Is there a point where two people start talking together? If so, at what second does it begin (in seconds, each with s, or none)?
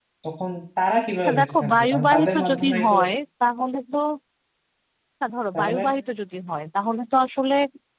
1.3 s